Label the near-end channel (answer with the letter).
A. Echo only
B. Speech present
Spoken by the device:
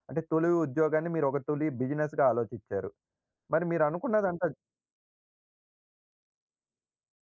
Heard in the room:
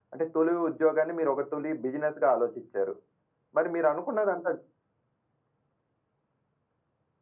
A